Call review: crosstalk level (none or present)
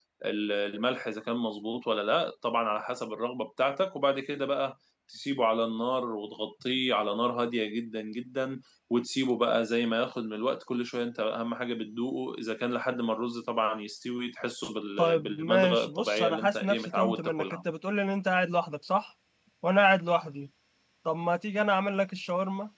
present